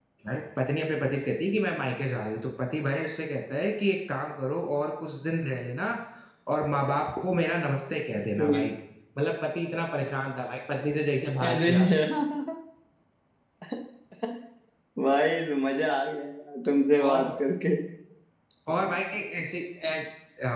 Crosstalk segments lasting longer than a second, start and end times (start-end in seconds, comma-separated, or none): none